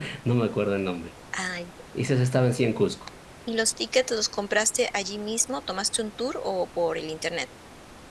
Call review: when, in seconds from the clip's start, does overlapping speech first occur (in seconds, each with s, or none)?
none